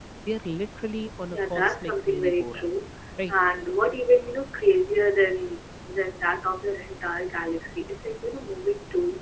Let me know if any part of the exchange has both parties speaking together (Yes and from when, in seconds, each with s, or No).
Yes, from 1.3 s